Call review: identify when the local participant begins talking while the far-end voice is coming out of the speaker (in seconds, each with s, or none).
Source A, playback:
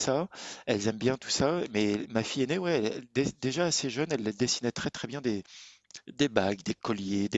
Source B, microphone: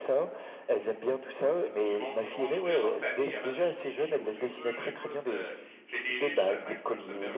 1.8 s